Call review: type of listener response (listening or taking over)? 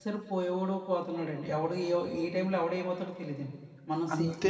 taking over